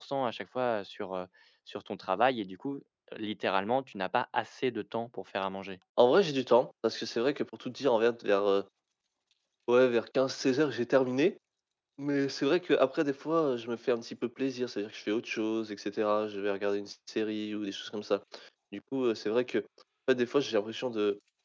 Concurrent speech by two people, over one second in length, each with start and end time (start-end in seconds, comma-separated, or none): none